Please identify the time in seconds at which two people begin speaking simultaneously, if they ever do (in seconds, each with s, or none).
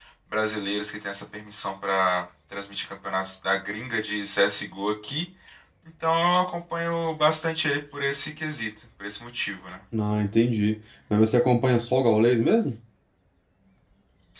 none